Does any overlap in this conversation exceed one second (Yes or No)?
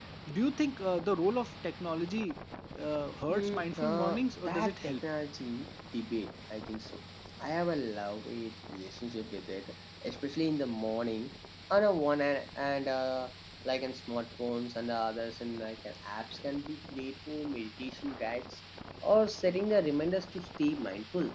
Yes